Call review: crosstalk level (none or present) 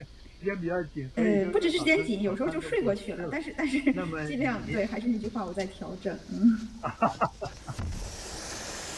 present